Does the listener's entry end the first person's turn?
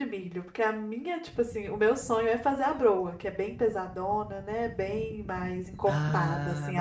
Yes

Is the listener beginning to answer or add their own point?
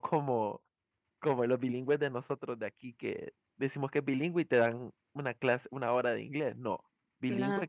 No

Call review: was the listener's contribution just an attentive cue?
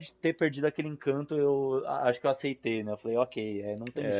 No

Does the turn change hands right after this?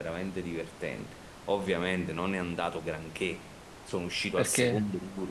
No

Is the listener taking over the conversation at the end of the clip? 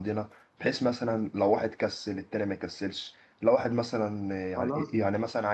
No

